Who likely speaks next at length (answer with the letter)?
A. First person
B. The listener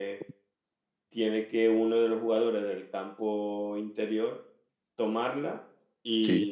A